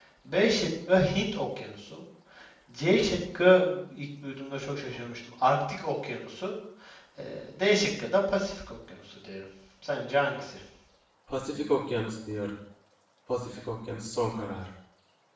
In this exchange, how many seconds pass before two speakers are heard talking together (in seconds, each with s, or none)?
none